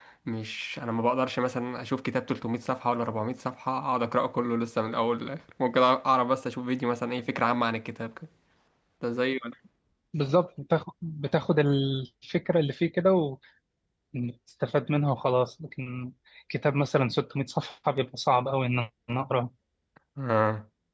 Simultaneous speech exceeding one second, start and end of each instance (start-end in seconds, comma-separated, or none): none